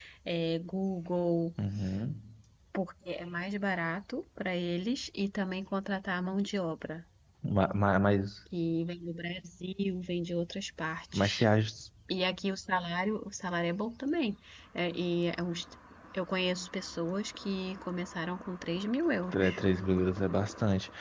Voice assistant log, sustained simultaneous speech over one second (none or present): none